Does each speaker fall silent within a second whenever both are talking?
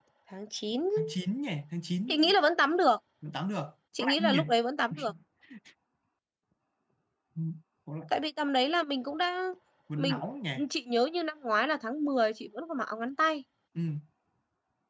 Yes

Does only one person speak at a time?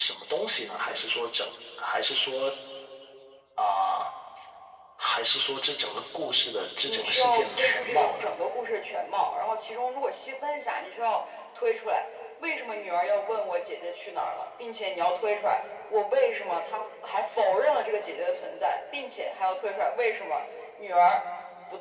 No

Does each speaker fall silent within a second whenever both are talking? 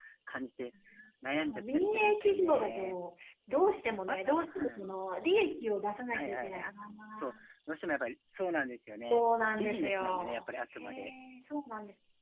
No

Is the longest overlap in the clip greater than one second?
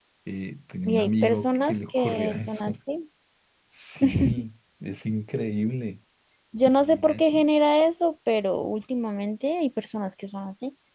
Yes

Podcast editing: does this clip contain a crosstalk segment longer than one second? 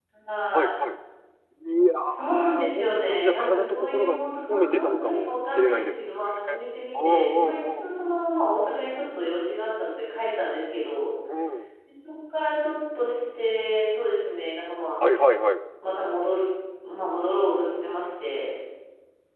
Yes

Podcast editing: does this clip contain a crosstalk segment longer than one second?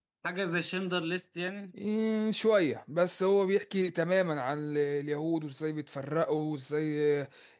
No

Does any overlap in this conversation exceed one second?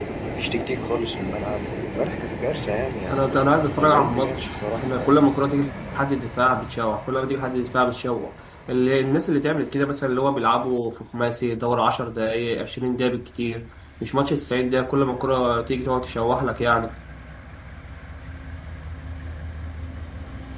Yes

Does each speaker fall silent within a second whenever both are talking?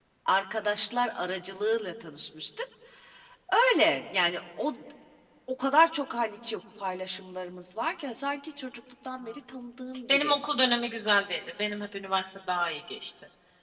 Yes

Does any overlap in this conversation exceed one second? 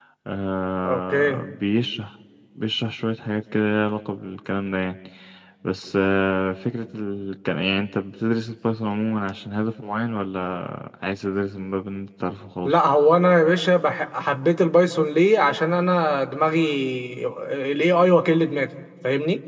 No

